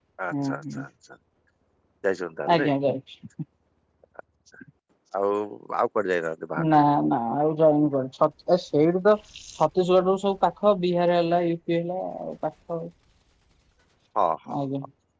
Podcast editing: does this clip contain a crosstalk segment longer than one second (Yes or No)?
No